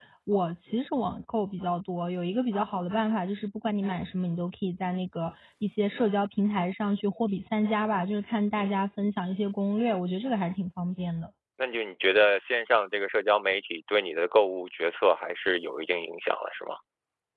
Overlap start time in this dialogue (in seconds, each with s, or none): none